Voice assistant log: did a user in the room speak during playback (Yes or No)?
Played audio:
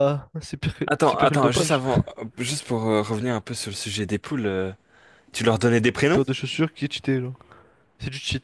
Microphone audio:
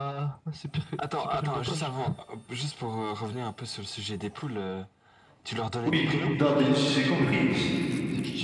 Yes